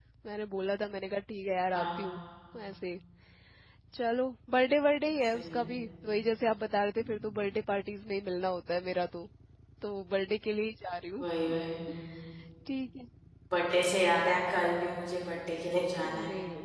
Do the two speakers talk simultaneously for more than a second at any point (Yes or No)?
No